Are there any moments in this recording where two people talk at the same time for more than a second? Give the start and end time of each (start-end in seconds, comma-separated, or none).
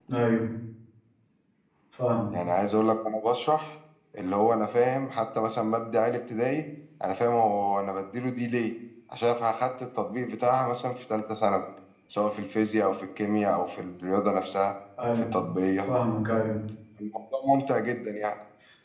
none